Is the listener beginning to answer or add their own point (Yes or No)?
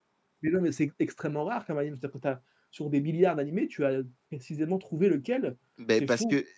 Yes